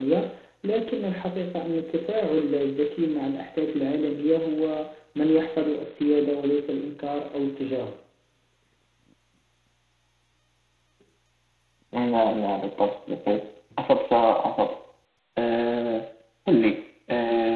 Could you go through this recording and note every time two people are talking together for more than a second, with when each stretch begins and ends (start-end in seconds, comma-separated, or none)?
none